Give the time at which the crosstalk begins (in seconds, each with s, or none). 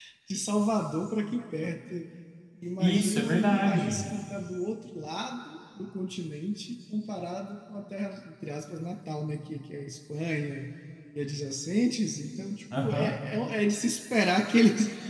2.8 s